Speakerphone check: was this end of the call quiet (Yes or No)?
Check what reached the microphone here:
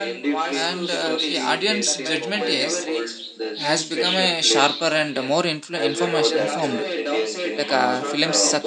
No